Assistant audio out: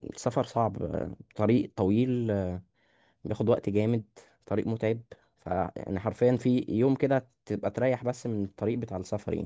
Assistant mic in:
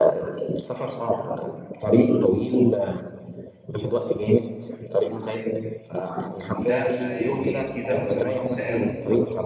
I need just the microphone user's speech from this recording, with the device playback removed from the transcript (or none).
لا يعني الفيزا اصلا رخيصة قوي